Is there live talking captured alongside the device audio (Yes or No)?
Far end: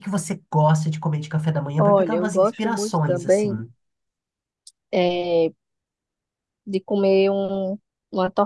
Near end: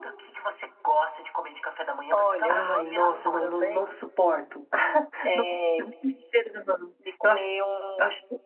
Yes